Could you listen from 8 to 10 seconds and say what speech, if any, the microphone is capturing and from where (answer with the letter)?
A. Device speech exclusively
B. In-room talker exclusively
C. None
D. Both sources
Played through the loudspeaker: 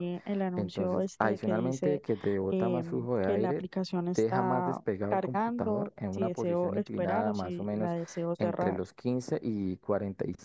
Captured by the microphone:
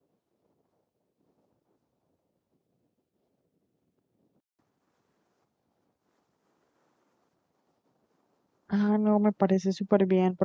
B